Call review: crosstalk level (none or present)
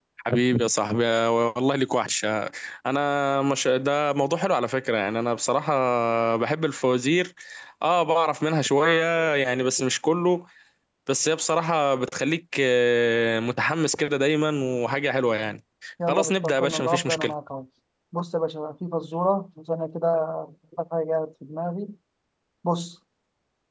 present